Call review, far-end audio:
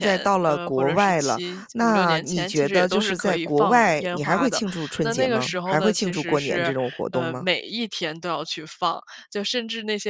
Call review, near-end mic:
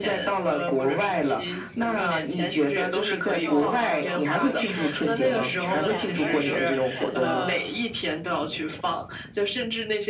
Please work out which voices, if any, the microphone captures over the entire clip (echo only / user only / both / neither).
both